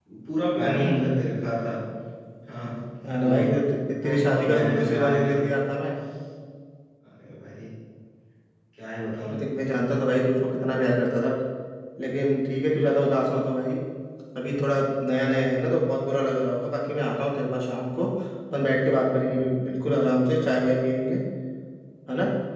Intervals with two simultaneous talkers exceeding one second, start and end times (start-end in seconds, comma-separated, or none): 4.0-5.4